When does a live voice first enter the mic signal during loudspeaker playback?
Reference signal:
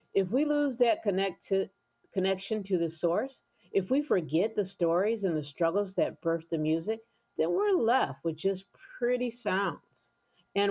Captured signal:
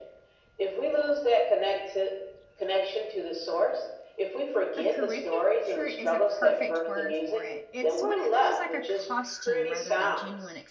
5 s

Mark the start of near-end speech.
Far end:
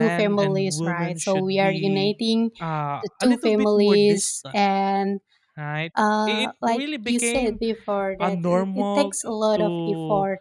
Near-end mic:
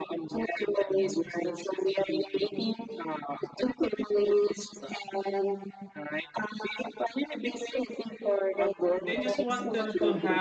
9 s

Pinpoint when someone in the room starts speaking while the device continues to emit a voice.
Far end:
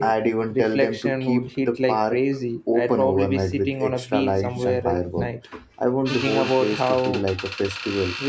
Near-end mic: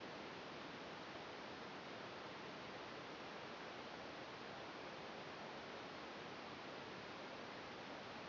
none

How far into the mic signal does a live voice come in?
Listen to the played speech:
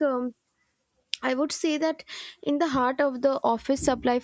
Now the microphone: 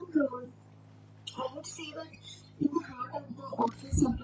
none

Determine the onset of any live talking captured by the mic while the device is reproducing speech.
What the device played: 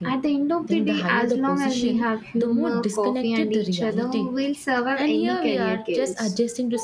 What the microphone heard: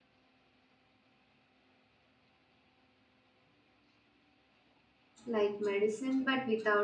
5 s

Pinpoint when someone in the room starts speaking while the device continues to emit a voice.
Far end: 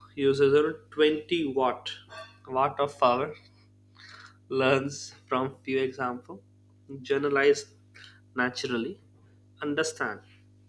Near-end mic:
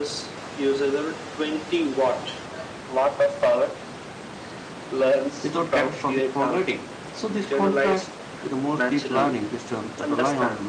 5 s

